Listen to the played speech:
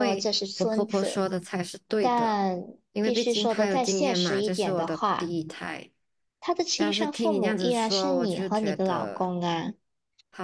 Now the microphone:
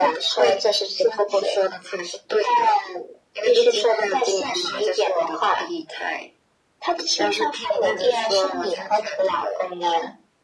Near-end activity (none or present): none